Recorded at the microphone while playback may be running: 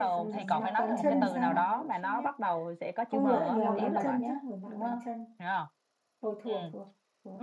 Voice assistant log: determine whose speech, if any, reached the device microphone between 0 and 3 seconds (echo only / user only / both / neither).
both